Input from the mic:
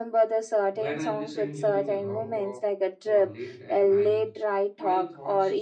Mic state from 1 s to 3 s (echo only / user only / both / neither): both